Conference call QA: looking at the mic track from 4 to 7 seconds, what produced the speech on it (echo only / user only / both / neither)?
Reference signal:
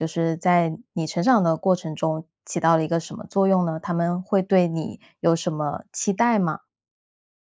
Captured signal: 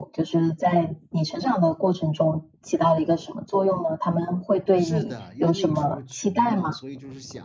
both